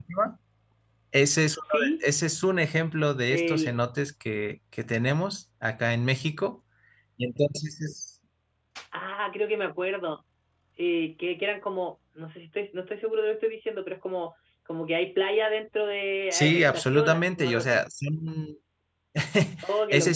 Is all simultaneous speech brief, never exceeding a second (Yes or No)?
No